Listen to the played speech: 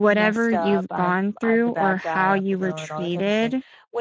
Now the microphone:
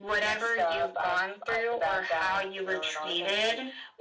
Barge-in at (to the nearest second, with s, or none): none